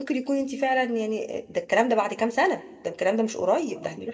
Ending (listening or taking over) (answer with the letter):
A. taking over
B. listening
B